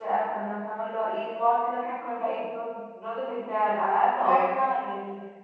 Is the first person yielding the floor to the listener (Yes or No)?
No